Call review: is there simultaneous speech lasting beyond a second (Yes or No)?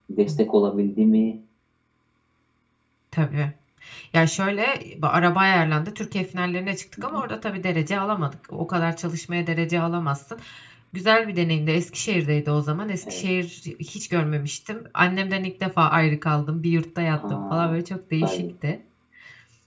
No